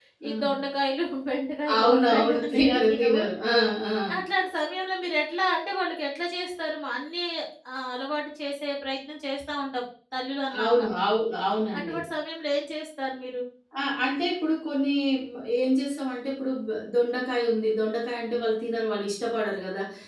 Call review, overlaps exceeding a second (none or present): present